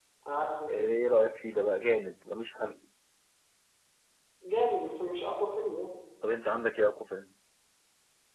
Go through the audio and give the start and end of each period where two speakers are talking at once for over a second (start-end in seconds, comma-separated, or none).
none